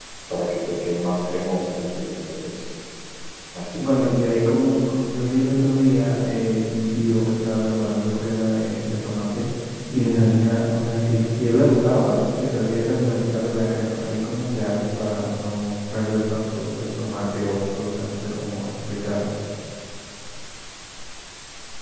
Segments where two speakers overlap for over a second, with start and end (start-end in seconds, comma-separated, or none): none